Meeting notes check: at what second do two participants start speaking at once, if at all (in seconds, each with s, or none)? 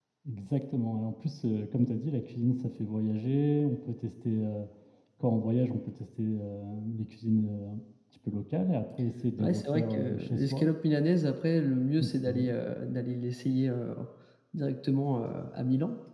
9.4 s